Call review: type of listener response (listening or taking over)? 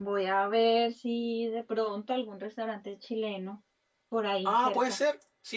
taking over